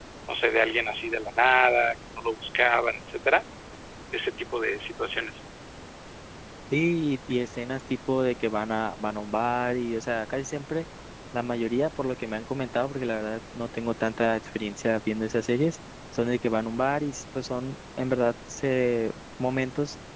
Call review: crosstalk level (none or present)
none